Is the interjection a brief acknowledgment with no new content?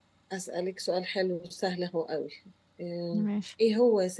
Yes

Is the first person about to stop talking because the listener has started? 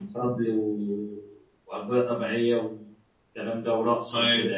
Yes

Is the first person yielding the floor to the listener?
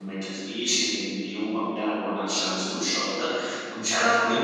Yes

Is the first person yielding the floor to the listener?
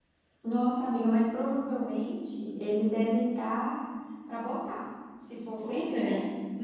Yes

